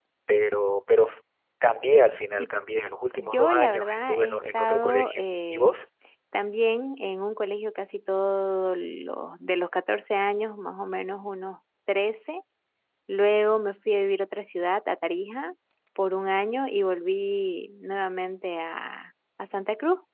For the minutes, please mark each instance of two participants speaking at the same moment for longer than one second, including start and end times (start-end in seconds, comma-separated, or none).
3.2-5.7